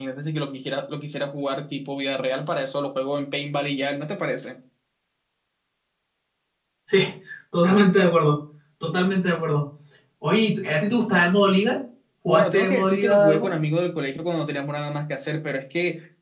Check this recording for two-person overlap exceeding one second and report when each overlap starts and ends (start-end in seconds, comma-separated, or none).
12.3-13.5